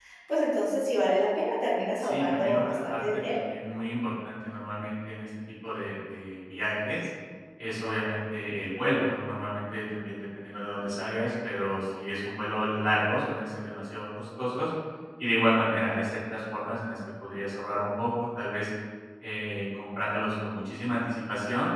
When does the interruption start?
2.0 s

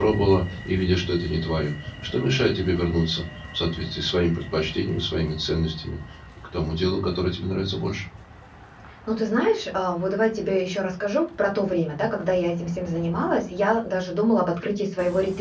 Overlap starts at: none

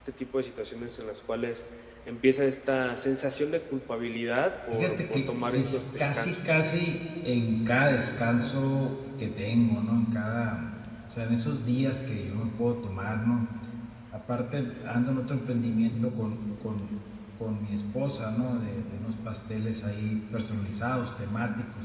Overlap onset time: 4.7 s

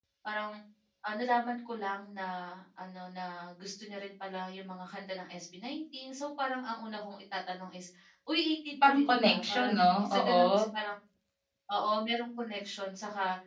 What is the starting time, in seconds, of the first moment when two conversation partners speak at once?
8.8 s

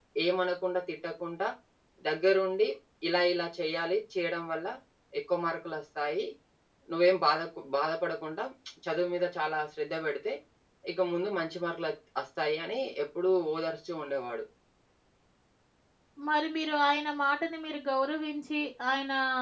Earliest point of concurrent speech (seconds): none

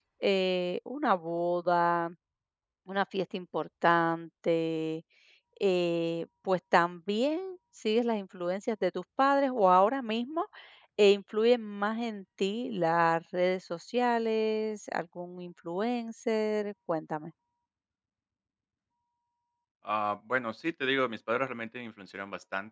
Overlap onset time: none

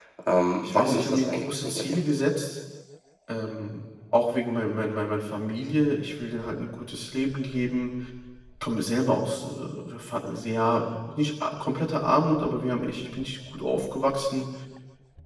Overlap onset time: 0.6 s

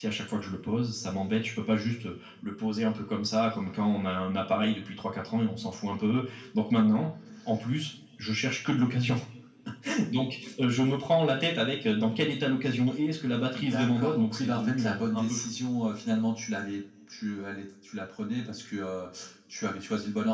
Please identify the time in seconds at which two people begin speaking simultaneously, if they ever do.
13.5 s

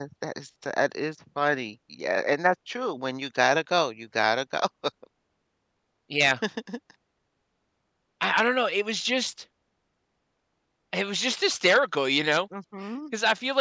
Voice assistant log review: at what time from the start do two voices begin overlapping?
none

